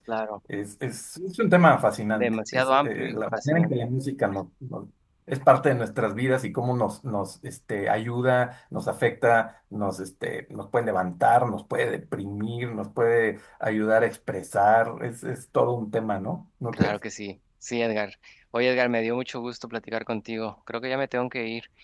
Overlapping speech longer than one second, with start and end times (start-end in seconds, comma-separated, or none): 2.1-3.7